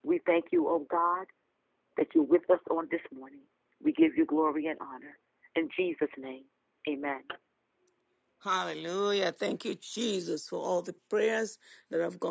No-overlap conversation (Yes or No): Yes